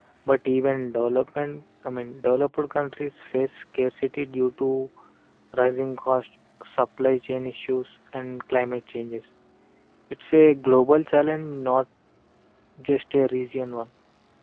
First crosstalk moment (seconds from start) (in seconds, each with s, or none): none